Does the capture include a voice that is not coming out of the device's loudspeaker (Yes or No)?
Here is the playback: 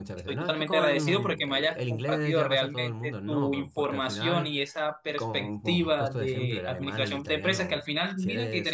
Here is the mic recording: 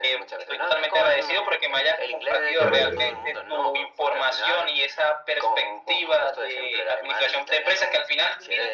Yes